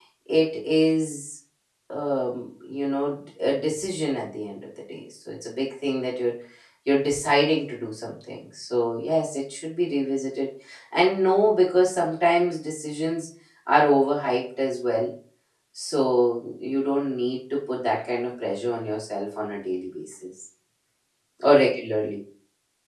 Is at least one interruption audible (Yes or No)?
No